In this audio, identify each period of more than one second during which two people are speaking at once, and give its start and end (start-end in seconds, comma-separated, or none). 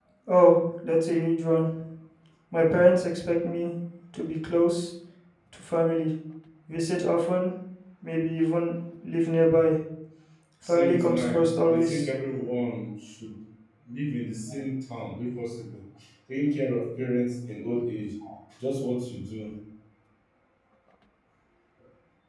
10.7-12.1